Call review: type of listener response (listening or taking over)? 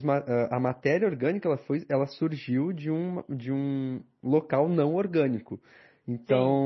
taking over